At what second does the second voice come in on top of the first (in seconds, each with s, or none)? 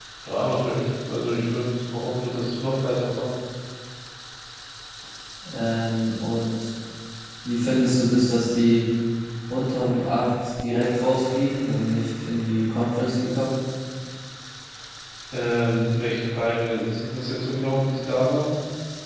none